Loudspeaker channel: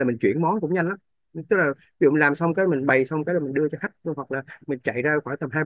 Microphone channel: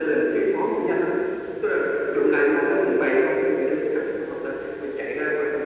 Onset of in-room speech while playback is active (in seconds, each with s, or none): none